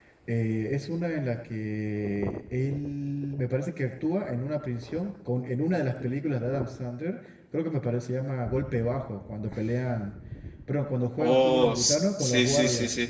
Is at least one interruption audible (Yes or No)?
Yes